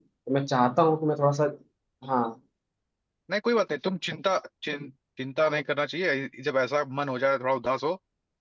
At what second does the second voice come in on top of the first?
none

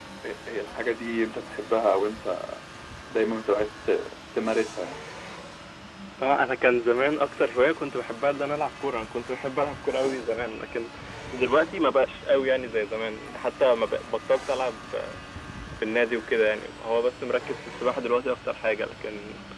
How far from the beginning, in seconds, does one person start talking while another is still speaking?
none

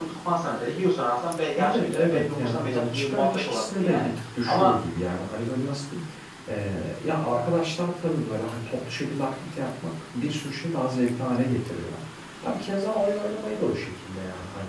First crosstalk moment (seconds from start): 1.6 s

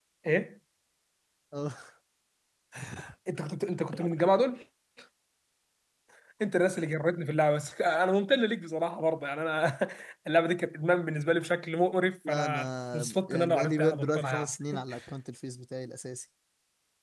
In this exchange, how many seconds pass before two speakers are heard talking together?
12.2 s

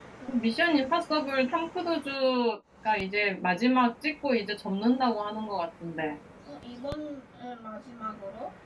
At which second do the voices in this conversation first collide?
none

